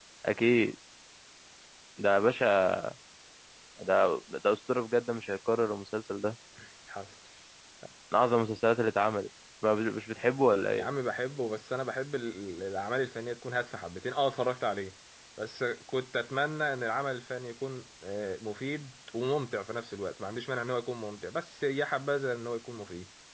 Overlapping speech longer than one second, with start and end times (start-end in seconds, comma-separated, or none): none